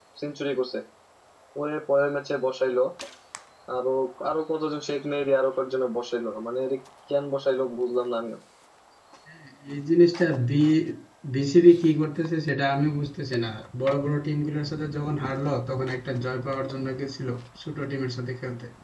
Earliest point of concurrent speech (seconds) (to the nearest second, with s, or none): none